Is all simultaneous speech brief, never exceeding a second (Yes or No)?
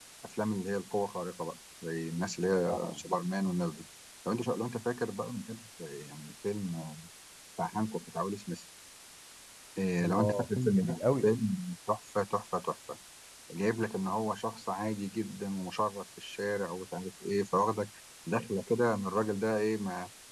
No